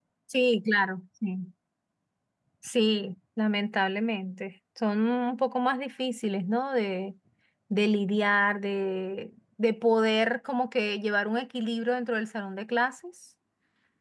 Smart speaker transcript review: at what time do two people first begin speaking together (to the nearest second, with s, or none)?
none